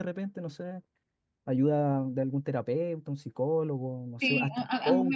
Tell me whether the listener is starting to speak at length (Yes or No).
Yes